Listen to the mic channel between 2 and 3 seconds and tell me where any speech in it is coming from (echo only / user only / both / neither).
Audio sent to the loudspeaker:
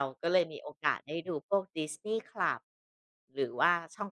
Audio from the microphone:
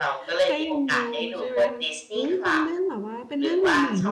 both